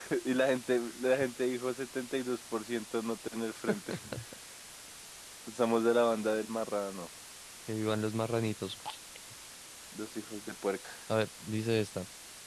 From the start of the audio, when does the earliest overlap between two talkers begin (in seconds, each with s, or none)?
none